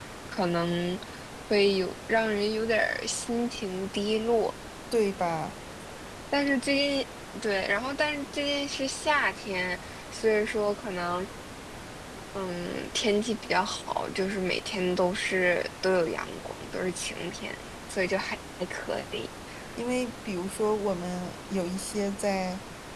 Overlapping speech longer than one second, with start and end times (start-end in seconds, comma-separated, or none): none